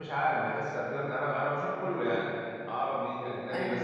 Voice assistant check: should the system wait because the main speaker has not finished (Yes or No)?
Yes